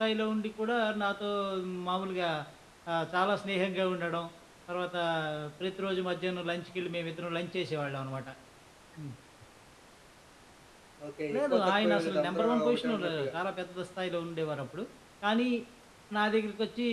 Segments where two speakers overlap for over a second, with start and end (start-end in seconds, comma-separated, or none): 11.4-13.3